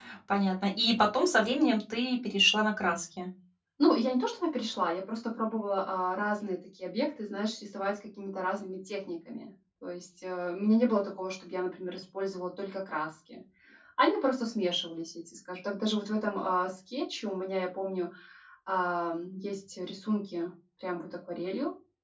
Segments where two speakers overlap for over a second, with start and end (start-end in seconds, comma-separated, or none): none